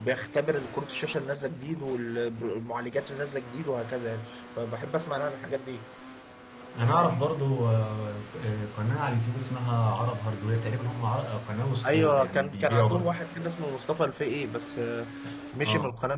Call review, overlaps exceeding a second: present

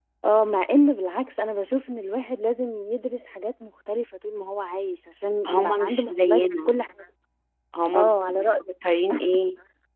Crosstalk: present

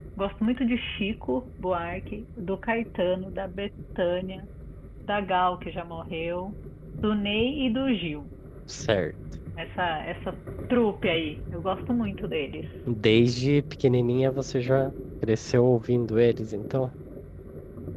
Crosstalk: none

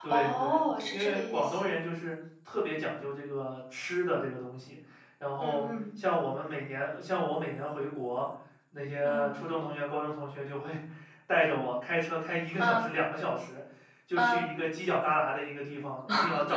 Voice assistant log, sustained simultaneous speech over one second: present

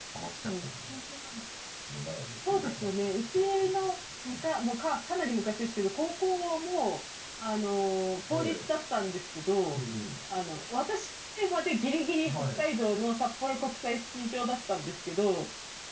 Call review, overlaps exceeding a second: present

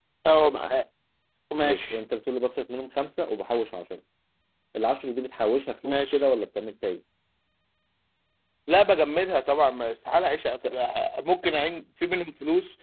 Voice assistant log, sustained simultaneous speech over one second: none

